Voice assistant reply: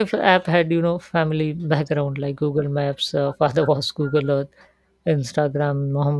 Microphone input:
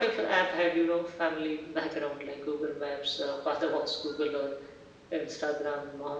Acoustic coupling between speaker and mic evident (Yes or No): Yes